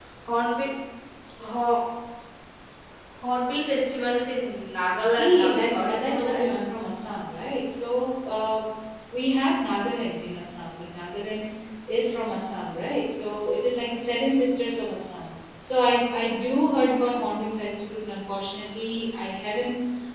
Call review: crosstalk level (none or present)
present